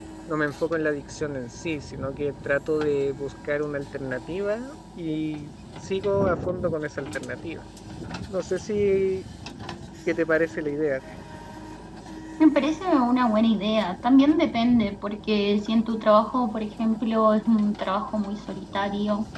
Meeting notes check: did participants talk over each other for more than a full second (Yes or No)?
No